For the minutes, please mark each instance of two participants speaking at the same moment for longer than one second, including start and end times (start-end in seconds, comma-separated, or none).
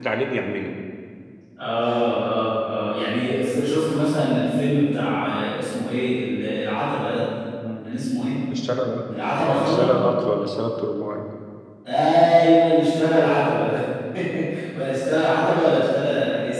none